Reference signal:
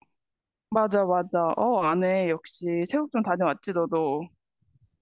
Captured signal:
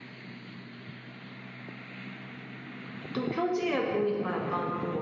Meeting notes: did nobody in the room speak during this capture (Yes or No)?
No